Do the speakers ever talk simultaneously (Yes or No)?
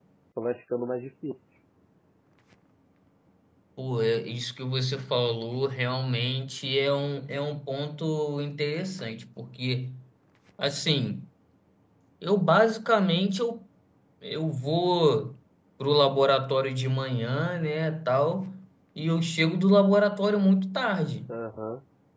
No